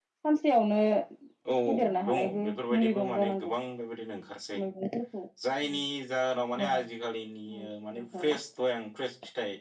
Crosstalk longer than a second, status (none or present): present